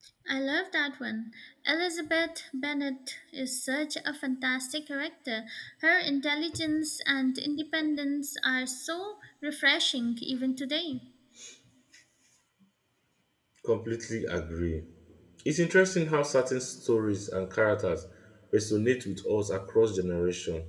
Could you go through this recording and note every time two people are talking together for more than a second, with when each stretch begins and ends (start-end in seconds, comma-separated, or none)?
none